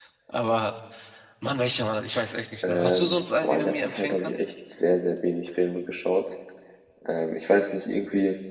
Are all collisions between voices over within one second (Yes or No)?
No